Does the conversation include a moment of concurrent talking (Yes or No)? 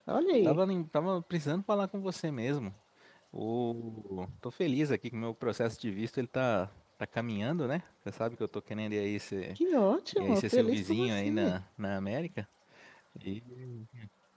Yes